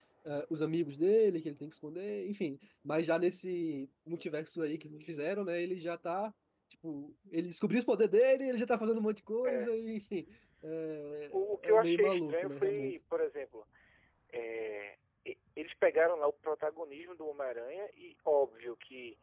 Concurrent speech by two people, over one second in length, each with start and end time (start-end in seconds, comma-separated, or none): 11.3-12.9